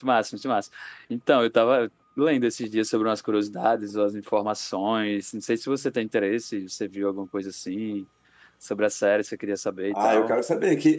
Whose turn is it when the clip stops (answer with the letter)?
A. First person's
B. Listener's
B